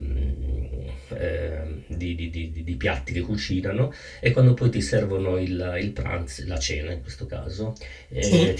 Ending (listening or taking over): listening